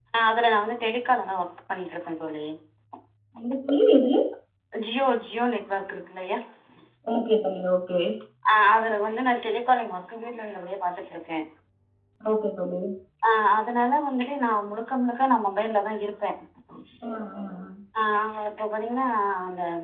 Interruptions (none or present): none